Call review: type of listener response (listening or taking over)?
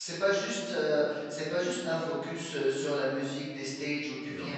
listening